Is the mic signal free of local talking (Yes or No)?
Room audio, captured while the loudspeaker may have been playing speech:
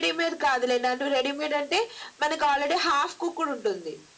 Yes